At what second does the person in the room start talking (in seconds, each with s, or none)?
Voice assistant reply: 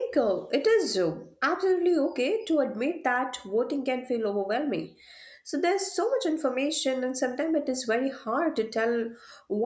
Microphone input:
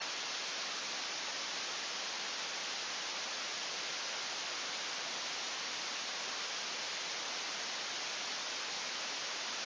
none